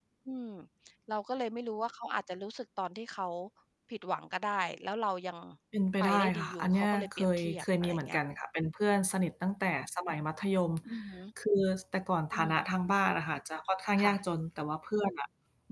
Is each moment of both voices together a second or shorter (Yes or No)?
No